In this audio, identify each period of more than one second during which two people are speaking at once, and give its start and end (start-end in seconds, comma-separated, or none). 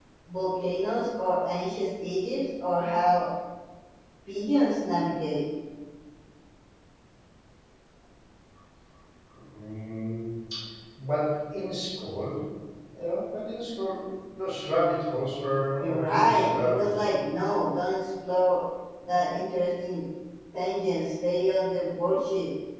15.8-17.0